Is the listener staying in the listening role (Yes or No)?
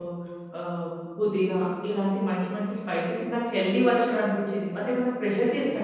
No